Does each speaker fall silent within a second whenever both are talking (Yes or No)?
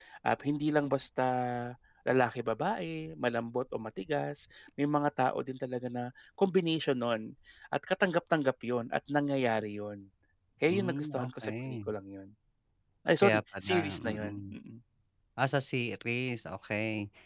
No